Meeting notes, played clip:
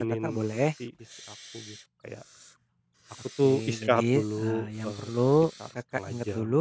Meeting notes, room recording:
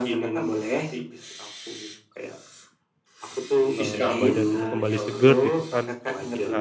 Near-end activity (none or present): present